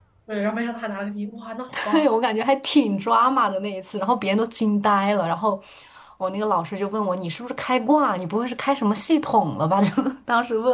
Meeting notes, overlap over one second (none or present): none